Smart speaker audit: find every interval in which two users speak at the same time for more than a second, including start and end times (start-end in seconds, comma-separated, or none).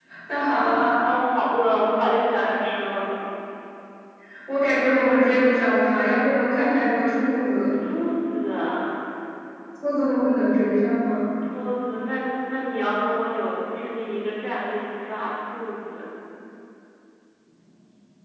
none